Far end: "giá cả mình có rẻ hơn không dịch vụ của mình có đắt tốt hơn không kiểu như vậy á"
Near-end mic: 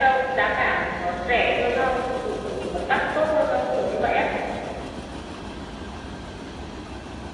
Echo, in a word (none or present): present